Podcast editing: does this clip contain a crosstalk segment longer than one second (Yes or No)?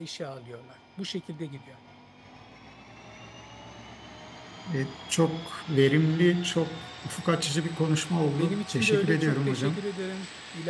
Yes